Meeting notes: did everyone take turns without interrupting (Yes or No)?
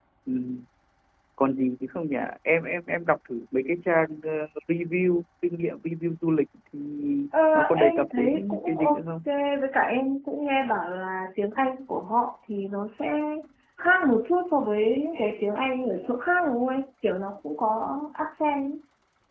No